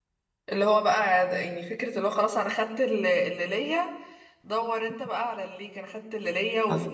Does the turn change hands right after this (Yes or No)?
No